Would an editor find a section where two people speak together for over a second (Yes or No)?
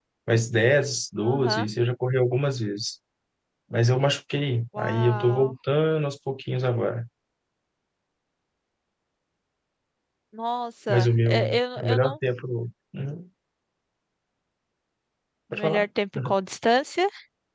Yes